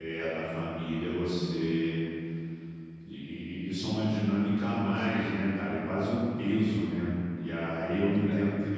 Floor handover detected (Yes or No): No